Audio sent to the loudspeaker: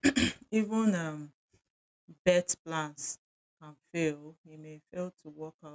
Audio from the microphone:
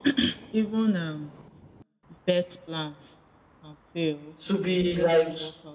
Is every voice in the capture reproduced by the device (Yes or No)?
No